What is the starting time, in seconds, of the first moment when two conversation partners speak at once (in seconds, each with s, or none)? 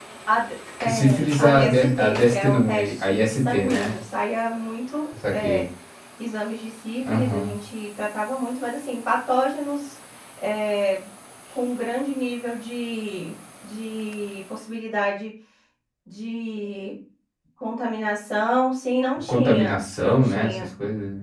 0.9 s